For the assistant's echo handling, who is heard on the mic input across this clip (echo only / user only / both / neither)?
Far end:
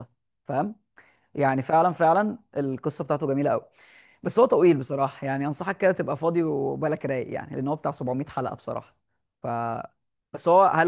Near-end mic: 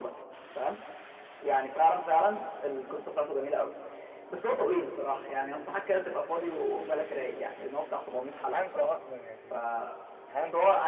both